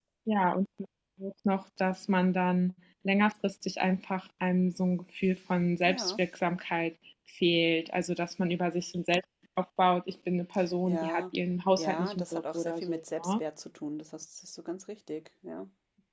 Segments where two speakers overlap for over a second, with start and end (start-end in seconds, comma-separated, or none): 11.8-13.4